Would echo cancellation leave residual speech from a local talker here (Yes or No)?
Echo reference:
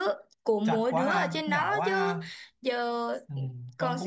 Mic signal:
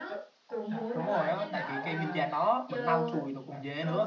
Yes